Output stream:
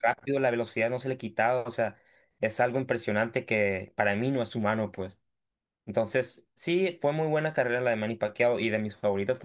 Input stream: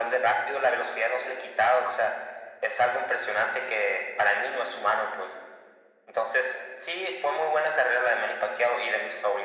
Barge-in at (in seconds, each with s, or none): none